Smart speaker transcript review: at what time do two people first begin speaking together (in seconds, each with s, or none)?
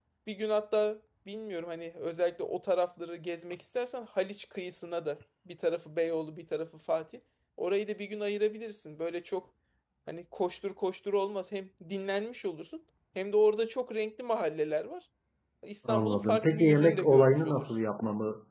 15.9 s